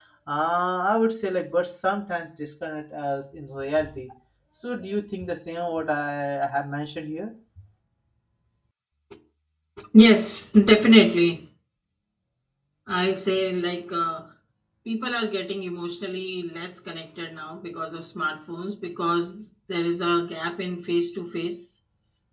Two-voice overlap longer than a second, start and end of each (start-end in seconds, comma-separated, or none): none